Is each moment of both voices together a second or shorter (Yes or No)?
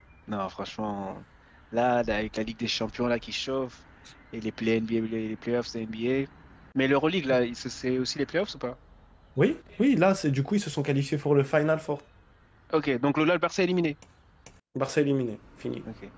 Yes